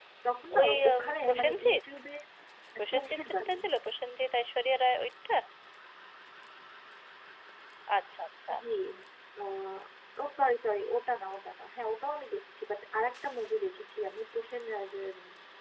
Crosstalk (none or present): present